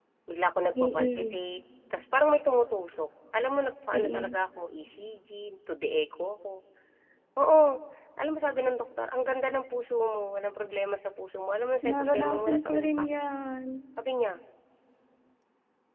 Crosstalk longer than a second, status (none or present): present